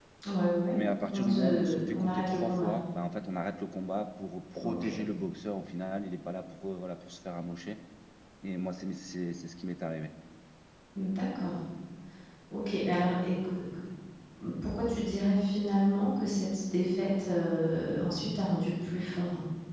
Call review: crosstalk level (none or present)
present